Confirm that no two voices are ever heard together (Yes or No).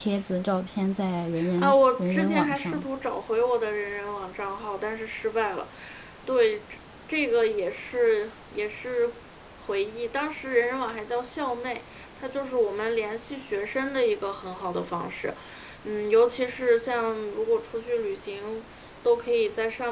No